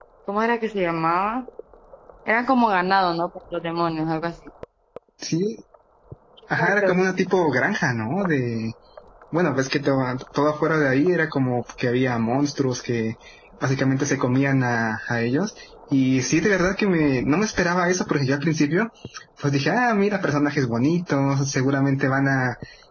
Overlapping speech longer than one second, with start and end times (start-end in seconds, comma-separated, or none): none